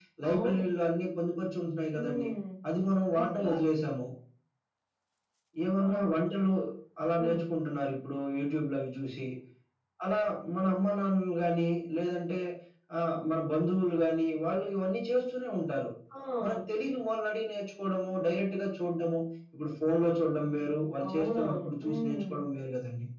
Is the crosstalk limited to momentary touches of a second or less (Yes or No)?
No